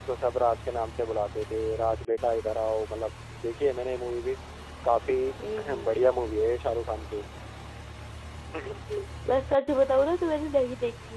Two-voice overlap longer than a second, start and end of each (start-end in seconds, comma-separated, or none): none